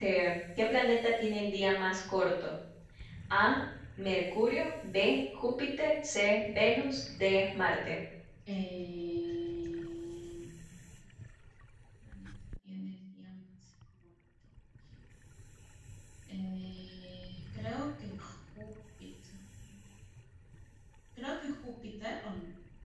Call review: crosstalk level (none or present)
none